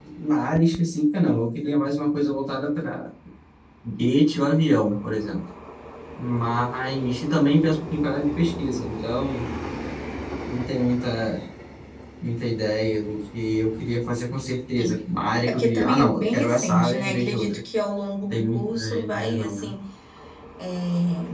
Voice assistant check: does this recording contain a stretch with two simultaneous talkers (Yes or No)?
Yes